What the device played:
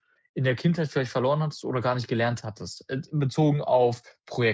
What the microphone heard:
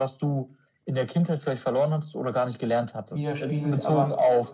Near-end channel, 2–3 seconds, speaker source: echo only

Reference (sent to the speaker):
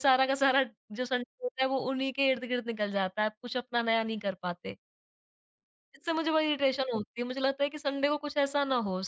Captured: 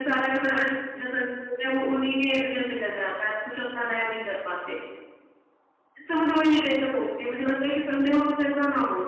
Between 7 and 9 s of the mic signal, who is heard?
echo only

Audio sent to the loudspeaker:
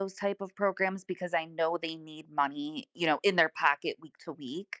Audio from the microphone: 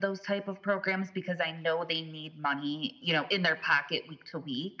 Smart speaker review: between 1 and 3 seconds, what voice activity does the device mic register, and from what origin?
echo only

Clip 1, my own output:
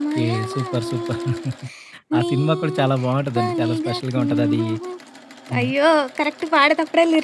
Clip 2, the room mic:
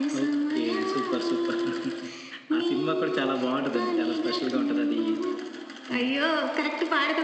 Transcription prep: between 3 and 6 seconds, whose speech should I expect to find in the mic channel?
echo only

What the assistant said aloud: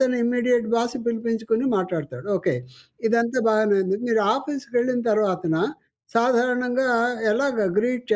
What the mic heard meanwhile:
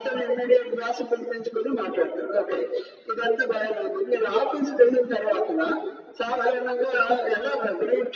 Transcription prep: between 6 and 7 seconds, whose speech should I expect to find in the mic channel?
echo only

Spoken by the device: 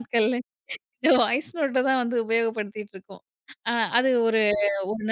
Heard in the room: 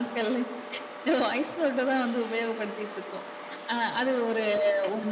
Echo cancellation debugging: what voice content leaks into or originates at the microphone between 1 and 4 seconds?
echo only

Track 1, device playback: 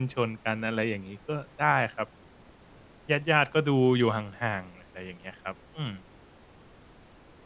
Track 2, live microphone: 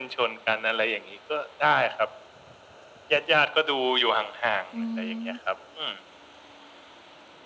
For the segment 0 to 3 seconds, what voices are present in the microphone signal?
echo only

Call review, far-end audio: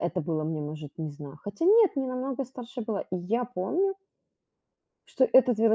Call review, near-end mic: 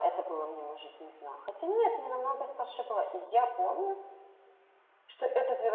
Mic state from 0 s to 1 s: echo only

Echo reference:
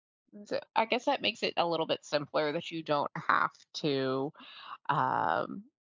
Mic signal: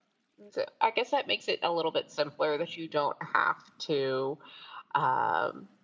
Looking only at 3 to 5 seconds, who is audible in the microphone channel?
echo only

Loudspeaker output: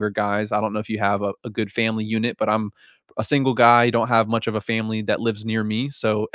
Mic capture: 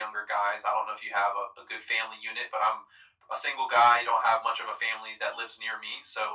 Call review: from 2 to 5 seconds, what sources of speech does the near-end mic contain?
echo only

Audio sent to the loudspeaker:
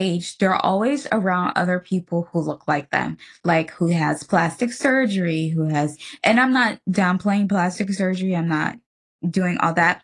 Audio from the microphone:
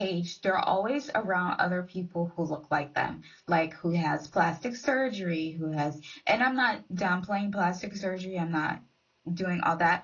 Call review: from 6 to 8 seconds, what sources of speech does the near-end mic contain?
echo only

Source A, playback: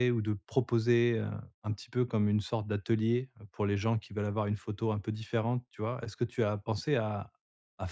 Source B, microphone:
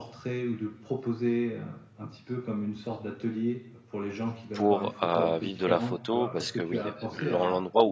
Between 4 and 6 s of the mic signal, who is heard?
both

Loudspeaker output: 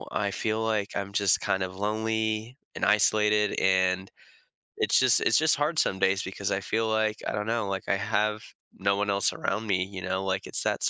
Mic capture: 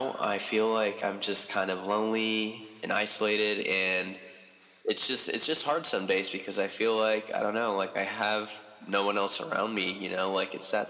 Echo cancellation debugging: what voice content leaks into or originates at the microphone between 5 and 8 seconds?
echo only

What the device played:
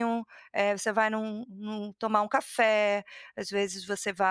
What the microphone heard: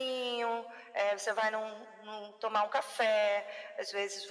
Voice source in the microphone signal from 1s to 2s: echo only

